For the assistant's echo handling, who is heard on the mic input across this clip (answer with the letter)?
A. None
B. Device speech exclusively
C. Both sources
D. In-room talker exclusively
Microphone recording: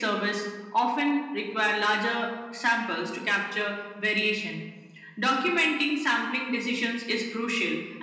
B